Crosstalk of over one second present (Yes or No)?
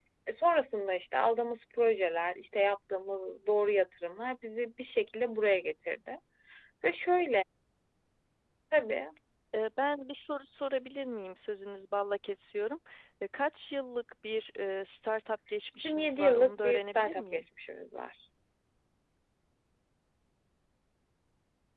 Yes